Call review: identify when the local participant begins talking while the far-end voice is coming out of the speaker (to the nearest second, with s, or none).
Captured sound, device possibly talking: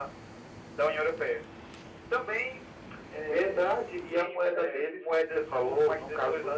none